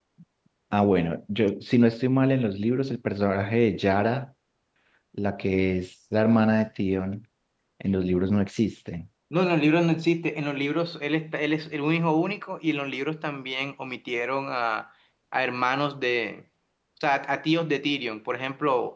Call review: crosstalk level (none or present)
none